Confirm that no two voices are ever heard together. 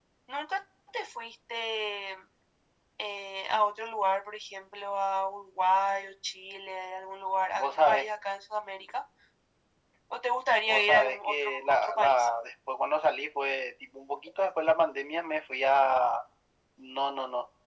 No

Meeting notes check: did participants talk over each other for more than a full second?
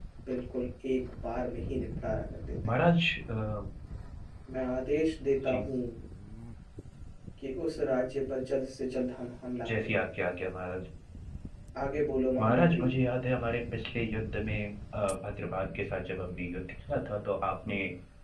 No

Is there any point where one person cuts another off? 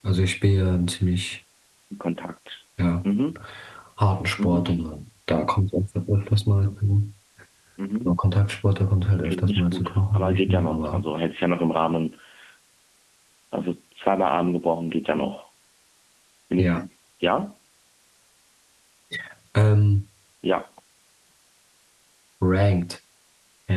Yes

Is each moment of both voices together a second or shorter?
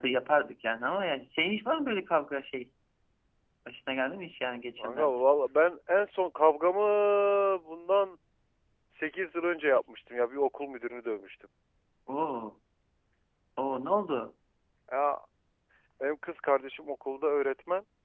Yes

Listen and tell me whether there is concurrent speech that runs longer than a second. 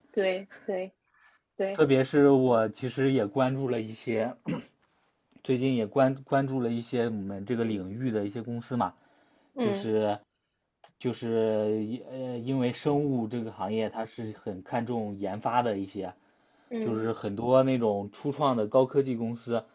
No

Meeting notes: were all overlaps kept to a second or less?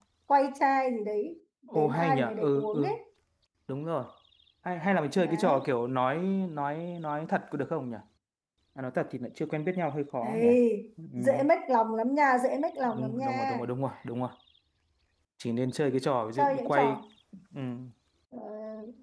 No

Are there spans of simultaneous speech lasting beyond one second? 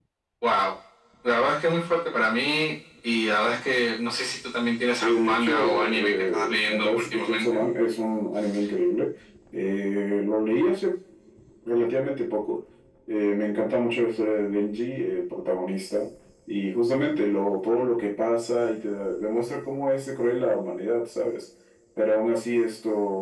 Yes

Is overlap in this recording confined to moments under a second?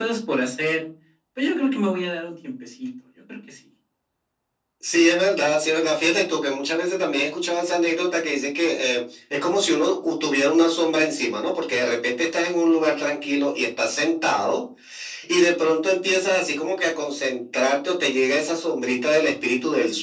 Yes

